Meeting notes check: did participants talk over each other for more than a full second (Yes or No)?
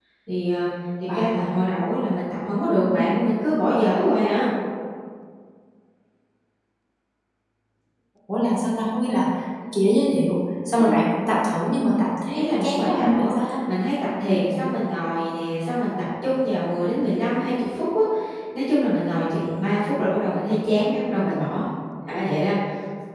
Yes